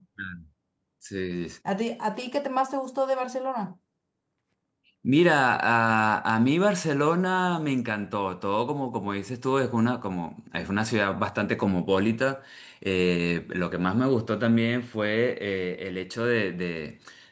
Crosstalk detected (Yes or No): No